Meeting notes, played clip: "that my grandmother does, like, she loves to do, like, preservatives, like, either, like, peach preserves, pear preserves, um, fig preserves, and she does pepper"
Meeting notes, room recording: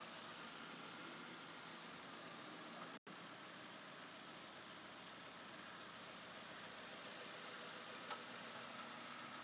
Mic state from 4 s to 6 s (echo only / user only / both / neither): neither